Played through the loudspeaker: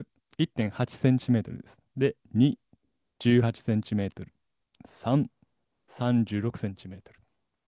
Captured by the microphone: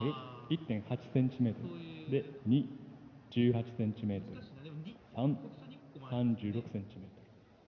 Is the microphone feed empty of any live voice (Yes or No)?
No